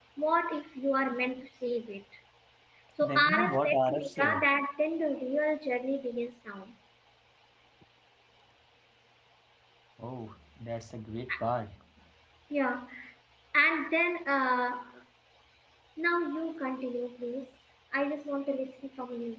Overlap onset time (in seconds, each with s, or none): 3.0 s